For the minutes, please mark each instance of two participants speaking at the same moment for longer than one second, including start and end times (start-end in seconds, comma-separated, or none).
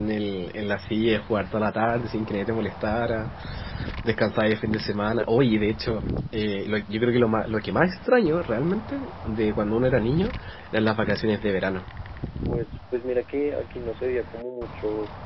none